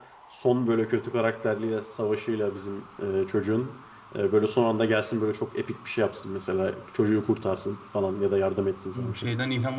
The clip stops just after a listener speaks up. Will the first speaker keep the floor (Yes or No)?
No